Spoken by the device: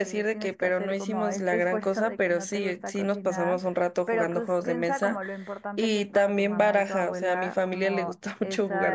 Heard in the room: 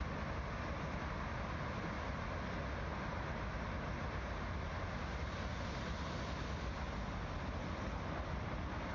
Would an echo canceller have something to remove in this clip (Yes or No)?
No